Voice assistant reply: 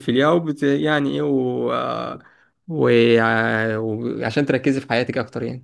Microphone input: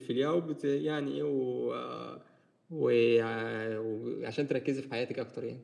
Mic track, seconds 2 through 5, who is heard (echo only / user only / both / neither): echo only